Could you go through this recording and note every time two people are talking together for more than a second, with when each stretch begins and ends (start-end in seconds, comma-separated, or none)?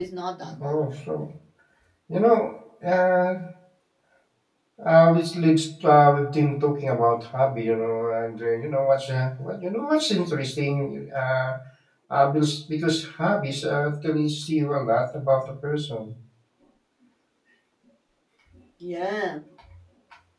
none